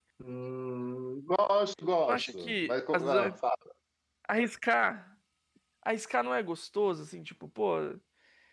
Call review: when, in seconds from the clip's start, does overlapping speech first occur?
2.1 s

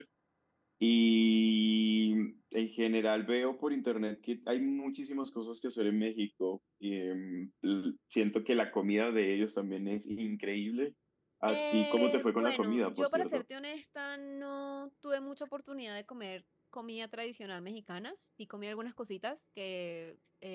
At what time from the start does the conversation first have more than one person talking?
11.5 s

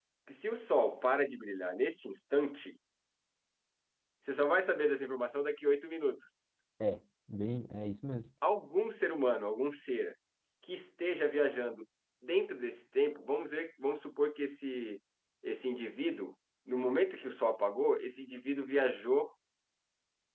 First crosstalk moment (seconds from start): none

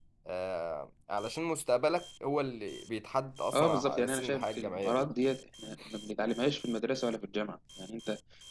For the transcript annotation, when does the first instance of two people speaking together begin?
3.5 s

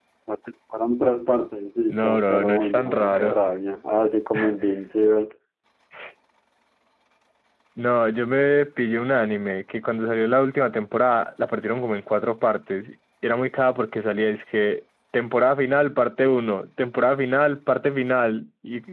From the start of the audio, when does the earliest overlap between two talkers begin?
1.9 s

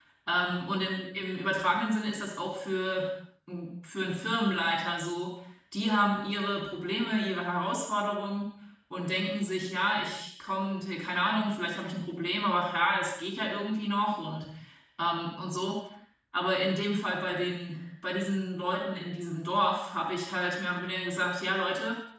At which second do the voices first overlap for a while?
none

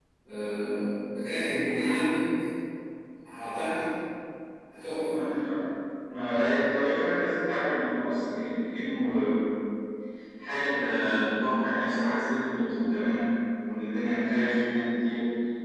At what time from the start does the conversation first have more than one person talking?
none

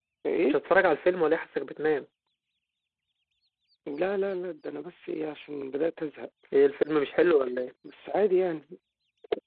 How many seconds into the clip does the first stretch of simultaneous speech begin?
none

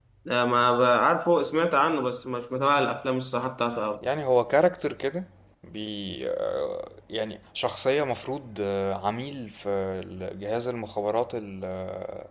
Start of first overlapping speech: none

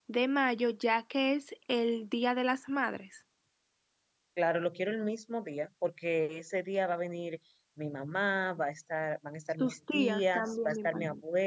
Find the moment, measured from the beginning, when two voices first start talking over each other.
9.6 s

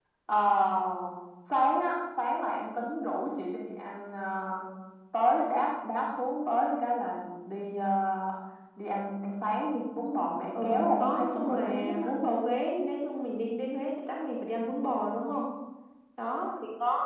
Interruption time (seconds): 10.5 s

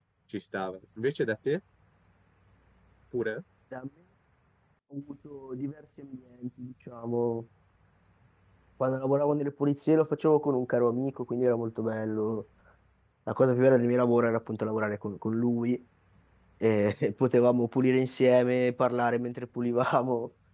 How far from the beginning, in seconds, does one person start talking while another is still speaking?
none

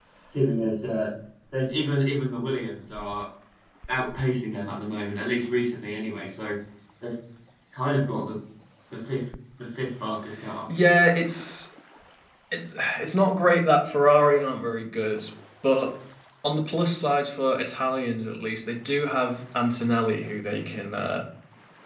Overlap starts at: none

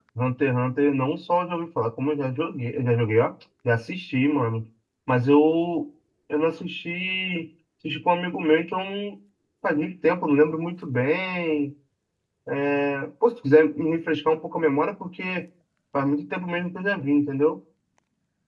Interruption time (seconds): none

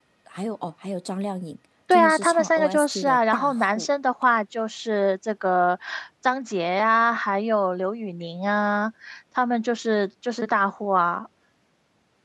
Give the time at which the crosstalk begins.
1.9 s

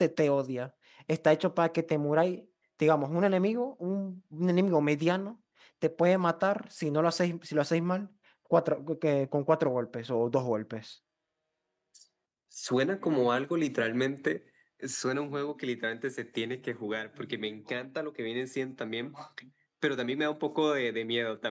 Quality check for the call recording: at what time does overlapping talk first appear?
none

